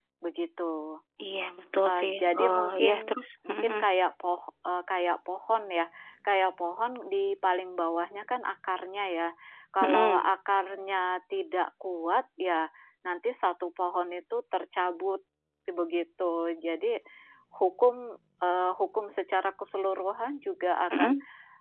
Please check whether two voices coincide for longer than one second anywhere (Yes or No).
Yes